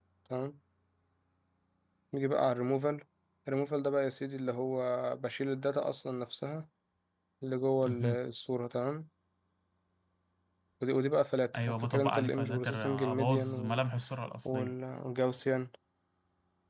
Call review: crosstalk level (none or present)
present